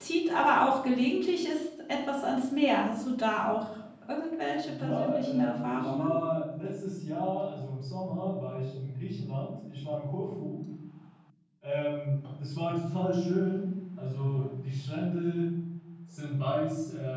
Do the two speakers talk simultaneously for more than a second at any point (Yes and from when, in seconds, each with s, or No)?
Yes, from 4.7 s